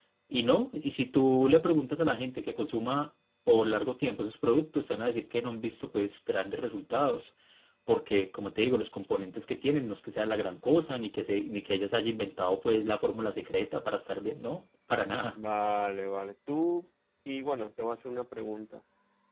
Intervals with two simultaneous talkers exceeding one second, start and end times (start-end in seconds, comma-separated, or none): none